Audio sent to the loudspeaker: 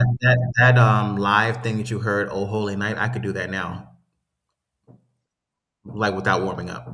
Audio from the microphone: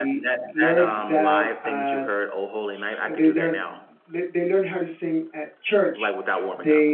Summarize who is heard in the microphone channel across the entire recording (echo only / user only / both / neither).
both